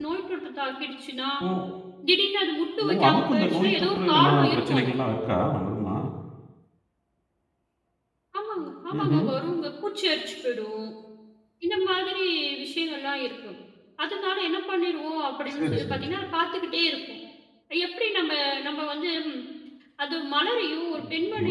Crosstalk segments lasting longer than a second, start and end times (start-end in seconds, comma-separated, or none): 2.9-5.0